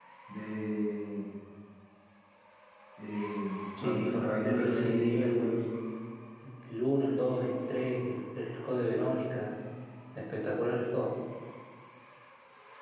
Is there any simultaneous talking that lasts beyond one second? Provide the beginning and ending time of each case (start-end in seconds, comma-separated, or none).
3.8-5.5